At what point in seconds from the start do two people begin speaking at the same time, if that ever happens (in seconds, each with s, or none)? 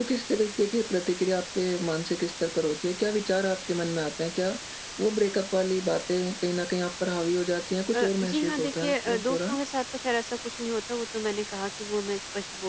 7.9 s